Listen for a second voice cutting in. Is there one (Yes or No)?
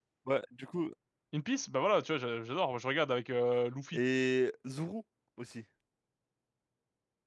No